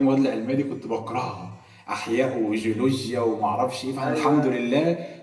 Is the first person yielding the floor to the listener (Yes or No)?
No